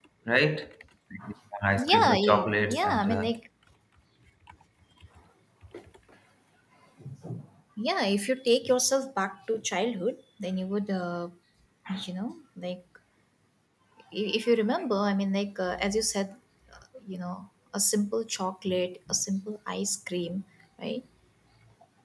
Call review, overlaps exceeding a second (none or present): present